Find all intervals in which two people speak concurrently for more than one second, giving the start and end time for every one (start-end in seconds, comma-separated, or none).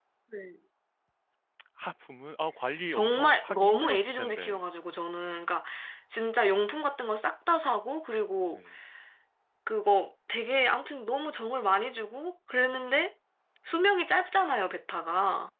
2.9-4.6